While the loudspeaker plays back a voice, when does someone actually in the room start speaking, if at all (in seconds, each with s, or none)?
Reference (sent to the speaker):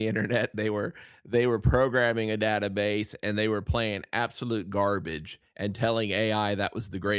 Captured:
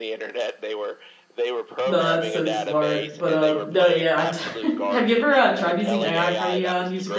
1.8 s